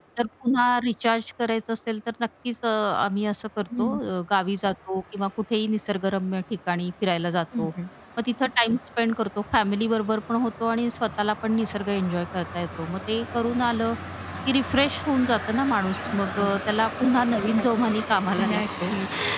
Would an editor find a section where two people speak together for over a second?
No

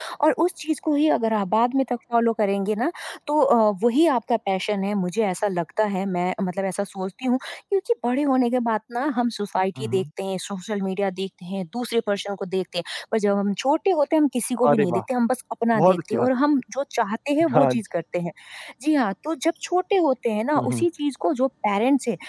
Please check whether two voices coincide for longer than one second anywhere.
No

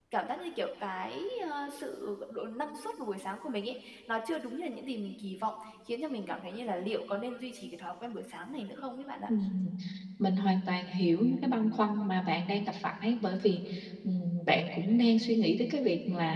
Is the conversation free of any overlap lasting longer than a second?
Yes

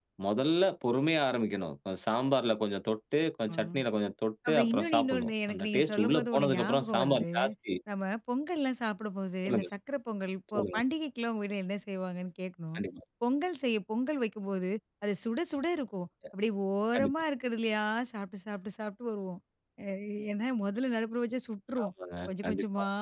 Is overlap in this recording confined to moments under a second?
No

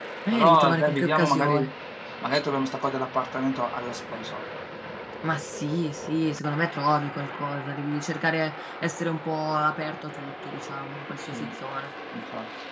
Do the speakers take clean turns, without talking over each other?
No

